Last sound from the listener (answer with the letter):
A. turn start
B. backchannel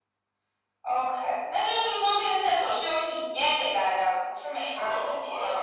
A